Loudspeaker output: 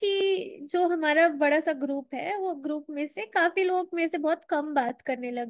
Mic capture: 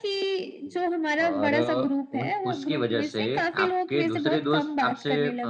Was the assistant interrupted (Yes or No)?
Yes